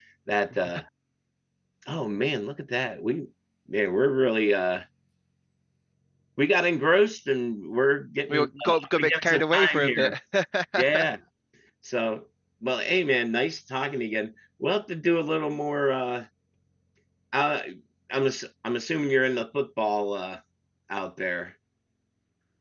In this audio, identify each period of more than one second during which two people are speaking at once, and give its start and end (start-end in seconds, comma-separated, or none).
8.3-10.1